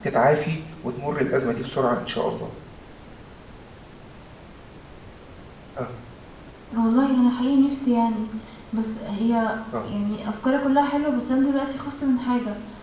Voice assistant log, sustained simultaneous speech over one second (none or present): none